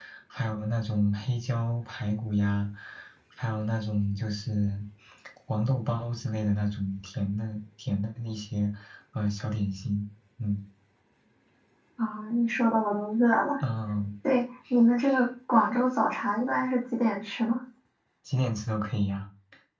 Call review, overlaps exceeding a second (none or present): none